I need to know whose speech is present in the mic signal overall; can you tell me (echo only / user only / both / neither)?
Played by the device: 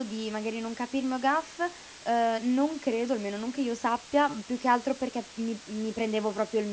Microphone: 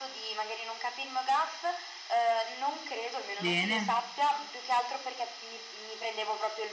both